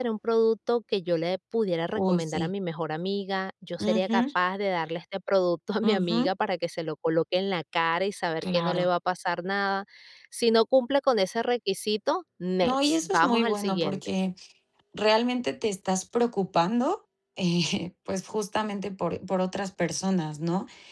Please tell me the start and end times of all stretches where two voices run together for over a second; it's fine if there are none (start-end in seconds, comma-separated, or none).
12.6-14.1